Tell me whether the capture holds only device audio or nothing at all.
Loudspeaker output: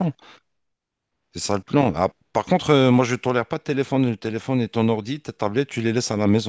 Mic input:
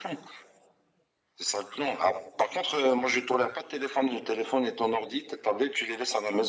Yes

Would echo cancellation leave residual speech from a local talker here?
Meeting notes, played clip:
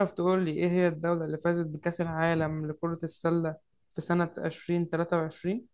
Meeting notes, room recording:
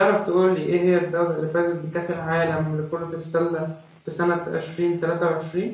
No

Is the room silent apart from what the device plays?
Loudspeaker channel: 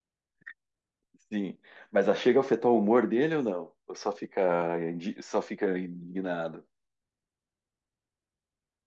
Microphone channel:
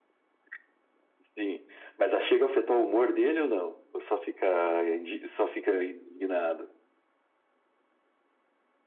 Yes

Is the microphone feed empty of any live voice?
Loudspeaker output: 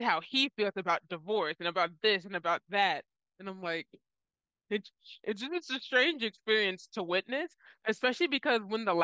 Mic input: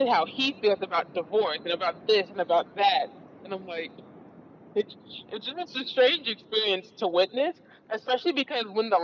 Yes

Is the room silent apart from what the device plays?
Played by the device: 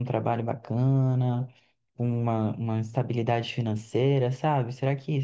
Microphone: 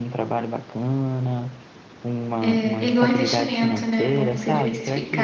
No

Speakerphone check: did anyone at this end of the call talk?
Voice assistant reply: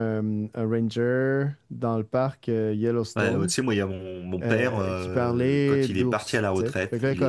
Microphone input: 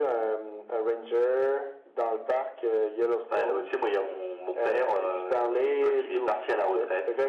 No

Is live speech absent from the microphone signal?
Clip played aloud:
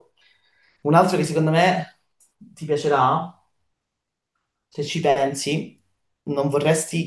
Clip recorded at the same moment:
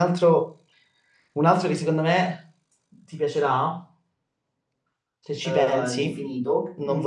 No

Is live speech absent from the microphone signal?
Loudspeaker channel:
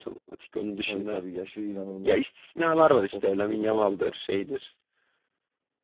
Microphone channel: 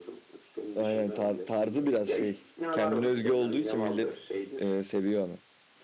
No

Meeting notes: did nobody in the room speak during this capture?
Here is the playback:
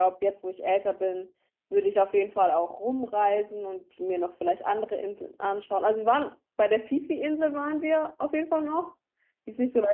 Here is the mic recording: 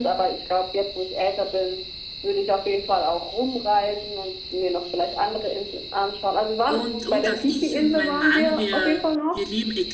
No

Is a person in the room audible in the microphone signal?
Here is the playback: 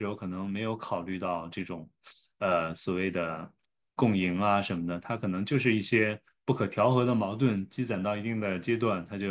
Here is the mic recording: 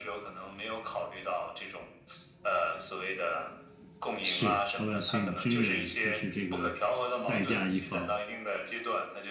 Yes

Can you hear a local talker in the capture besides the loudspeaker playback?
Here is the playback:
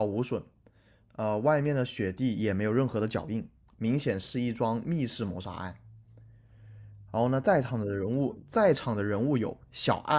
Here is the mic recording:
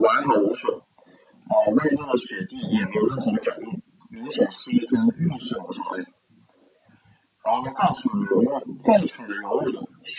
No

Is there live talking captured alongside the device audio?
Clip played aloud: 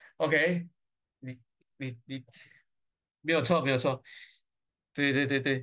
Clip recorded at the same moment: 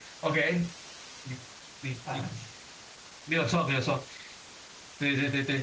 Yes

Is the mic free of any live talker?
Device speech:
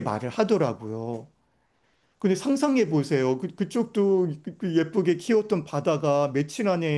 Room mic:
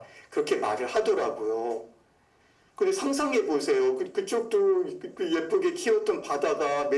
Yes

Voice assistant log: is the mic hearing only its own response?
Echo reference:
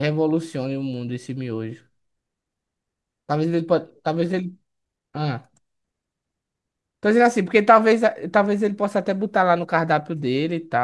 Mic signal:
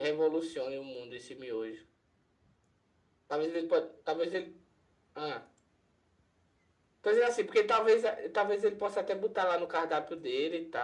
Yes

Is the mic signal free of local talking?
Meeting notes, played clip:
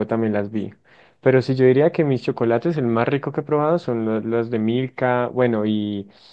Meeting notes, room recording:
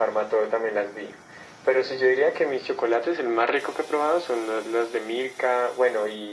Yes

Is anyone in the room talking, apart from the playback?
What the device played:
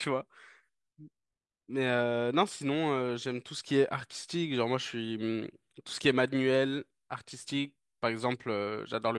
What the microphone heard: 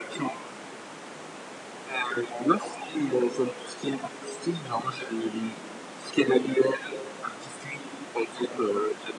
No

